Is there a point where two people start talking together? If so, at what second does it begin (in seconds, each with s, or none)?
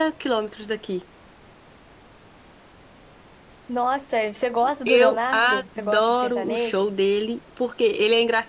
4.6 s